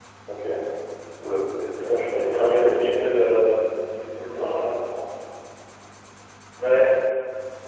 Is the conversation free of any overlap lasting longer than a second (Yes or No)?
No